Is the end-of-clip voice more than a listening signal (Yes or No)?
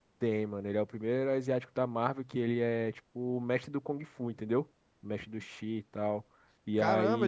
Yes